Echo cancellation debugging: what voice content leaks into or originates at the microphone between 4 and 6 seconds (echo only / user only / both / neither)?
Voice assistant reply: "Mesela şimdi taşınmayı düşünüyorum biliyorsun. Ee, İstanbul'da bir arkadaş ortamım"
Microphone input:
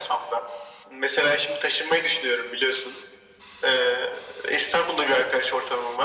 echo only